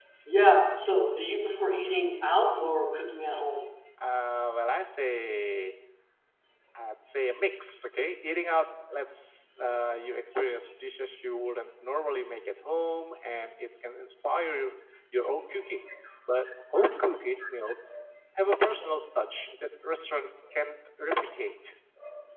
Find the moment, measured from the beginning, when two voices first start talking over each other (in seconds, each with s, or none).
none